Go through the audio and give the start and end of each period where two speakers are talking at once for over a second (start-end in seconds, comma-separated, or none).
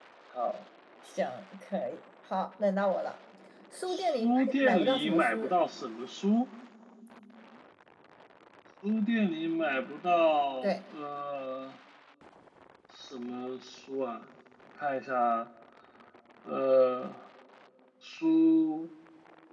3.9-5.5